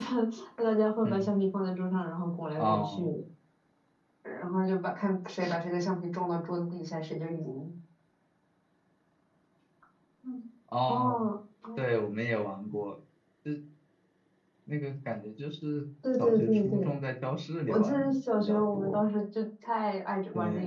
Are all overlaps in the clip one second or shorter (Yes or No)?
No